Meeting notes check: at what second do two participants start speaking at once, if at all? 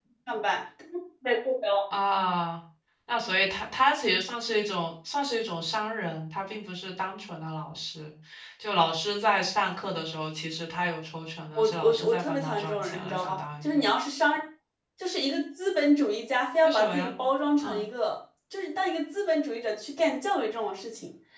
11.6 s

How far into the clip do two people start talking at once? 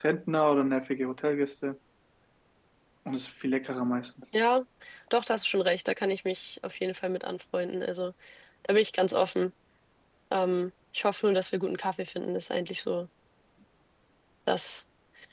none

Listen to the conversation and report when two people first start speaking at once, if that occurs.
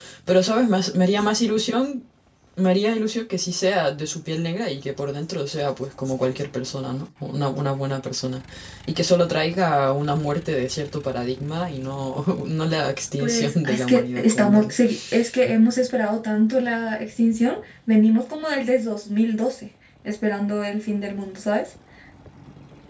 13.2 s

